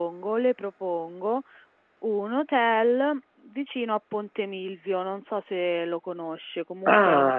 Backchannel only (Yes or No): No